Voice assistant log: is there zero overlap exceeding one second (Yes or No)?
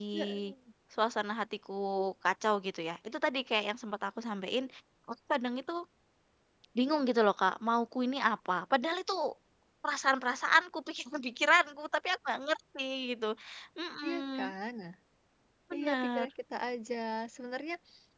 Yes